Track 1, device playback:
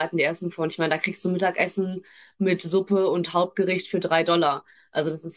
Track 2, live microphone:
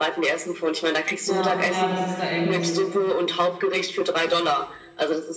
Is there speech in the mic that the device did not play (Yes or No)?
Yes